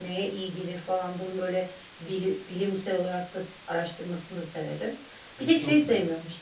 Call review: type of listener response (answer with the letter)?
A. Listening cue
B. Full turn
A